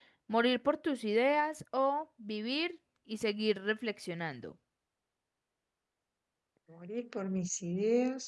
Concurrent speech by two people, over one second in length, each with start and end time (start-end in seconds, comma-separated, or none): none